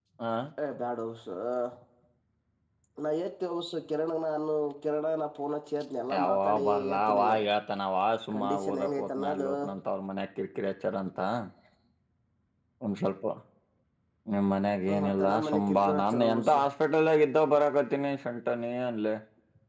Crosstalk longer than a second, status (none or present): present